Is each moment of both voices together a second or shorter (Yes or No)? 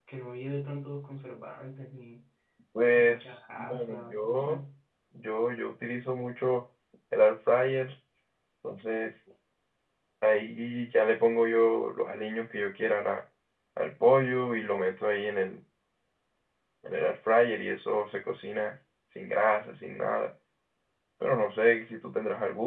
No